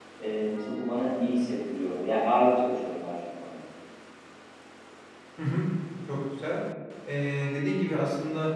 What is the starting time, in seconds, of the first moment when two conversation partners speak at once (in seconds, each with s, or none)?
none